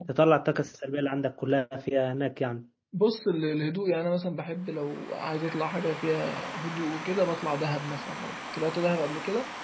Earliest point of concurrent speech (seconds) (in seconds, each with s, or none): none